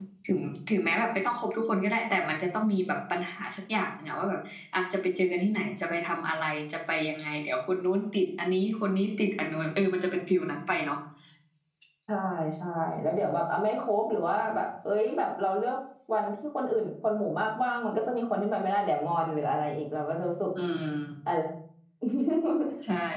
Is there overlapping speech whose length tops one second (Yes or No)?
No